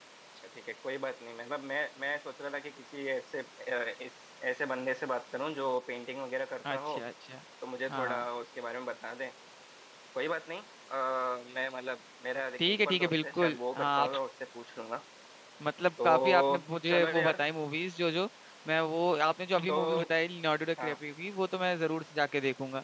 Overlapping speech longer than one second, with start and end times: 12.7-14.1, 16.0-17.4

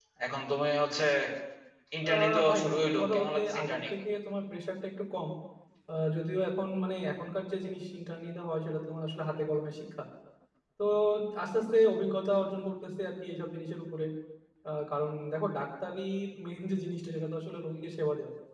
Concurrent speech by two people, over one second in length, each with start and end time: 2.1-3.8

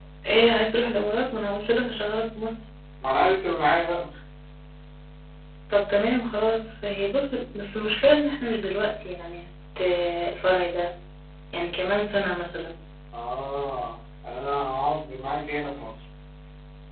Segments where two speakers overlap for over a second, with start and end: none

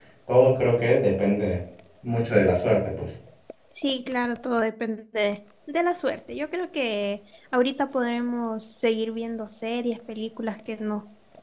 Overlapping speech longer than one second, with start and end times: none

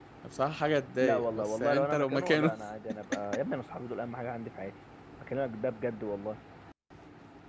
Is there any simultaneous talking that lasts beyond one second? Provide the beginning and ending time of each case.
1.0-2.5

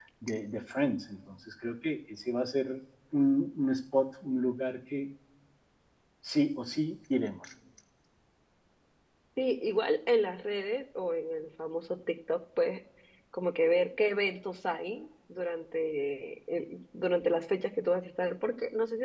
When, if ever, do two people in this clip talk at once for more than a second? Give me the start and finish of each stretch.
none

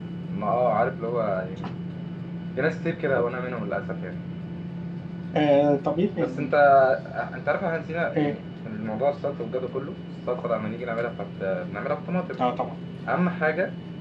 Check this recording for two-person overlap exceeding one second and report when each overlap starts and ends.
none

